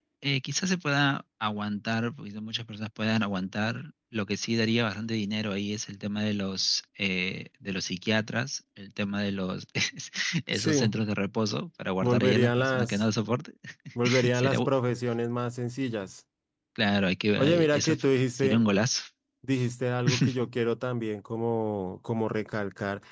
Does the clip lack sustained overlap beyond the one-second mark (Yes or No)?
No